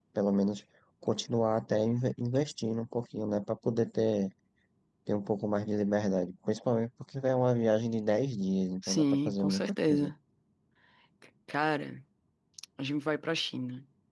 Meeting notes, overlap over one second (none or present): present